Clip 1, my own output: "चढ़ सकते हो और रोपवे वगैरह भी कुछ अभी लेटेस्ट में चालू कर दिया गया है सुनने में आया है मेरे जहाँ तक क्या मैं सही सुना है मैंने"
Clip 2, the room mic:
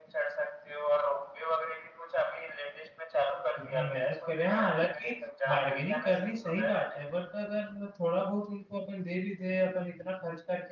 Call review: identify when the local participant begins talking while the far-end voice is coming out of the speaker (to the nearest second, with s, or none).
4 s